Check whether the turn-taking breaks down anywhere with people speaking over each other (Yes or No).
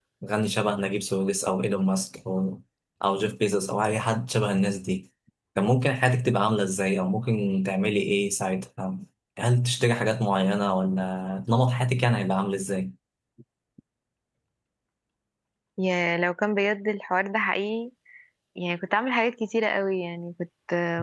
No